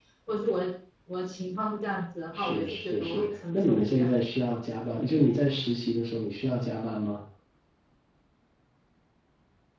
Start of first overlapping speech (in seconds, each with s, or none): 2.3 s